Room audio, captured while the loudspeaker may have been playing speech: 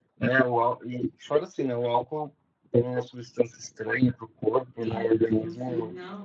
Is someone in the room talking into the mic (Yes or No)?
Yes